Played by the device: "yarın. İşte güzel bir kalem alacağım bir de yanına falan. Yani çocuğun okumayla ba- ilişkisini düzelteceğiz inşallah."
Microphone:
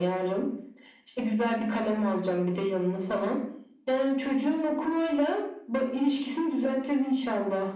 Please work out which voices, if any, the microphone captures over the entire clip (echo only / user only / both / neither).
echo only